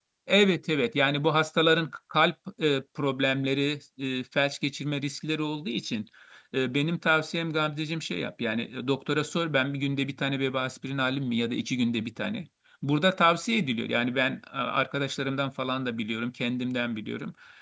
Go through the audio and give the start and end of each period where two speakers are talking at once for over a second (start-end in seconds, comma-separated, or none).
none